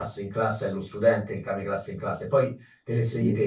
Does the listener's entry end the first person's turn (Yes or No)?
No